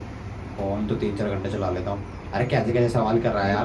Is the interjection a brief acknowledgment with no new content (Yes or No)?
Yes